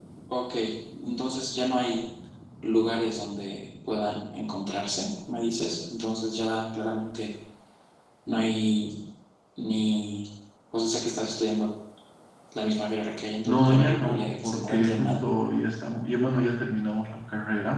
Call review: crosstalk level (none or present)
present